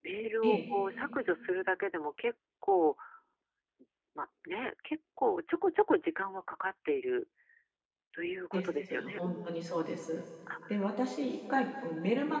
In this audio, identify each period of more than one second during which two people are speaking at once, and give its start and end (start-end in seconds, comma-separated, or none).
8.5-9.8